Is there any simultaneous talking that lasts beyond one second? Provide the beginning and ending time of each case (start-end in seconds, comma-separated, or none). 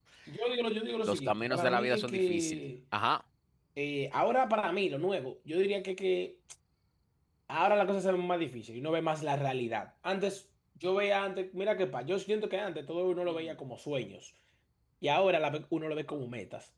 1.1-2.6